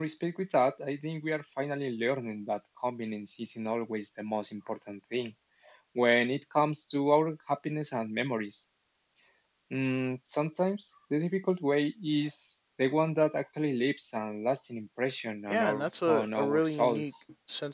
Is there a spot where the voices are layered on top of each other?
Yes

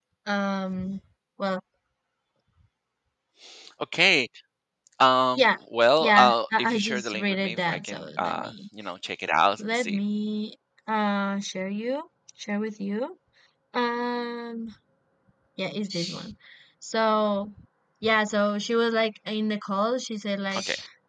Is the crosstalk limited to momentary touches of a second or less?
No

